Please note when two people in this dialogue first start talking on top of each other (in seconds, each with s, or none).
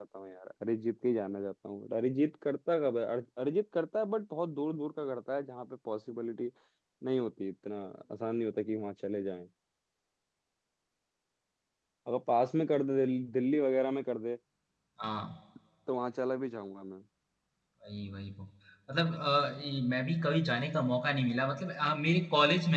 none